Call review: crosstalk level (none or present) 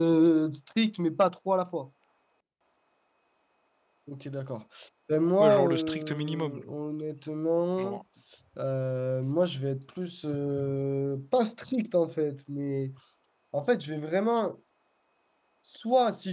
present